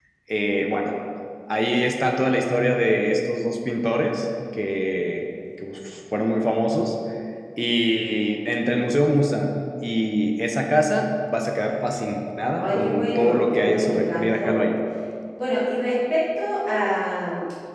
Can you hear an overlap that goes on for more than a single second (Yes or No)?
Yes